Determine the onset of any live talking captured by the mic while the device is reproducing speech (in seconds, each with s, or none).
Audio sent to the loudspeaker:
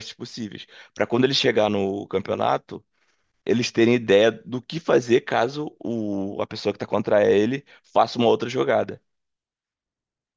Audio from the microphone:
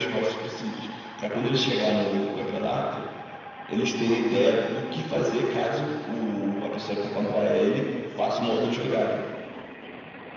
none